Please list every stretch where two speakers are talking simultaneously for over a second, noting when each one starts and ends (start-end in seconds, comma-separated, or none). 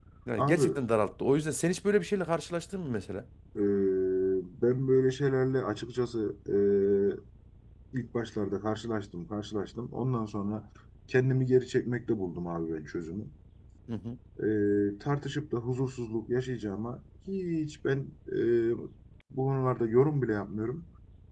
none